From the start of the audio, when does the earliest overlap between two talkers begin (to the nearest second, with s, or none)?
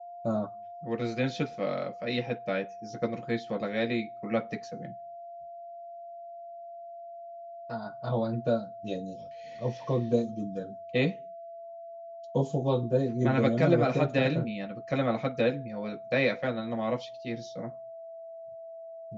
13 s